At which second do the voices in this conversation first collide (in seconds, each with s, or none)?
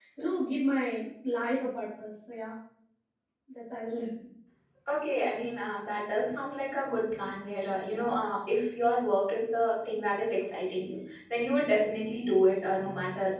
none